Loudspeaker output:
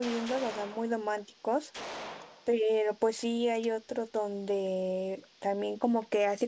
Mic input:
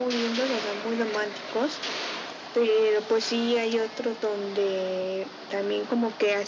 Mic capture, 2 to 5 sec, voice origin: echo only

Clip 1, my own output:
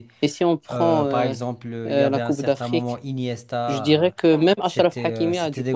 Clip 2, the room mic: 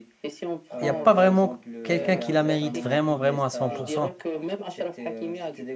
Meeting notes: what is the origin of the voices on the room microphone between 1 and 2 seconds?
both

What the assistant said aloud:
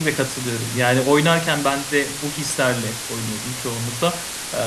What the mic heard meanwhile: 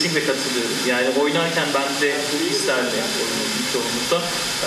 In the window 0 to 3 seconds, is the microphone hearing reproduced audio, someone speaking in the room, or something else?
both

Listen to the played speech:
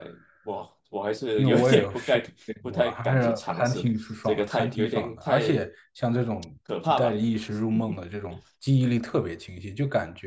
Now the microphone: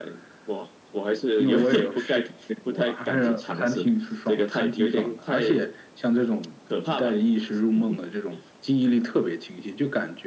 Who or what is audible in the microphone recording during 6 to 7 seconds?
echo only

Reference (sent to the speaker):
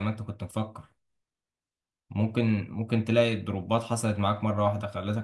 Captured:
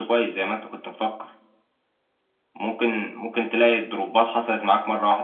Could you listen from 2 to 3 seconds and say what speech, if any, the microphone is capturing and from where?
echo only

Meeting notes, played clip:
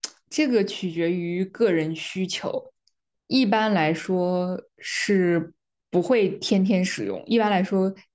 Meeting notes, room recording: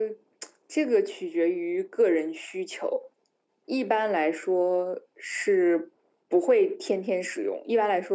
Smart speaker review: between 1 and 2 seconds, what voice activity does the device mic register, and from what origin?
echo only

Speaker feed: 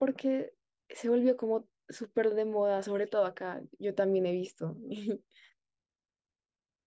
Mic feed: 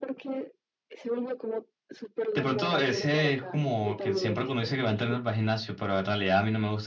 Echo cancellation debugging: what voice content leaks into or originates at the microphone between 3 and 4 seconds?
both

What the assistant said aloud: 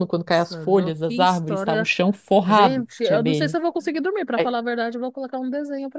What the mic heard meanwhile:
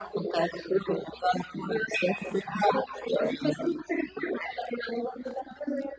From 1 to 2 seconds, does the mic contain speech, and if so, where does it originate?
echo only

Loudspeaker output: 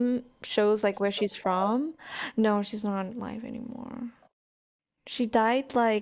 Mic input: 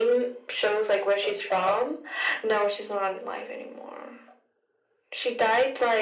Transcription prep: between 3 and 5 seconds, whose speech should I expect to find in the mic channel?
echo only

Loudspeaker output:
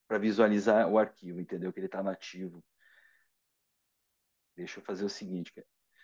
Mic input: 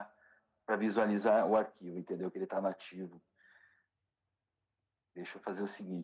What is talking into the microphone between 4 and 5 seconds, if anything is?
neither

